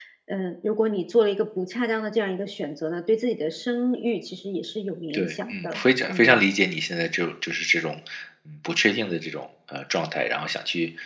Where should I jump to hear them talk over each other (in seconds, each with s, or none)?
5.1 s